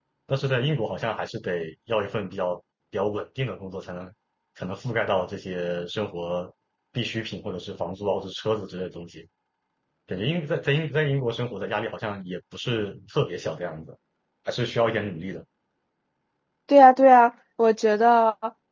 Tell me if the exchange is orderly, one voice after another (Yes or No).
Yes